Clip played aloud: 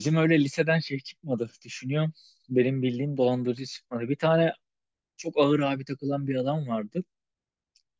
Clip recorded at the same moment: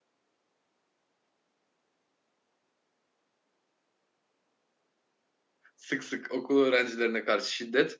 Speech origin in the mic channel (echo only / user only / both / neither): user only